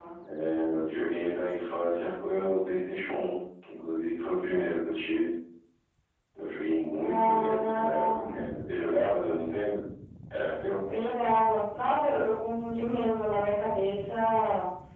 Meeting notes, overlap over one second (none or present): present